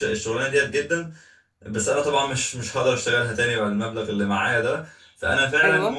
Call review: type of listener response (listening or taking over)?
listening